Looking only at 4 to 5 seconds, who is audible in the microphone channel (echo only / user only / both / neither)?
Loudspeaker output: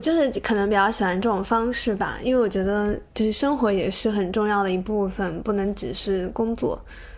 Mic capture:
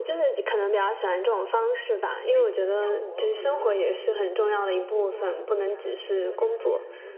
both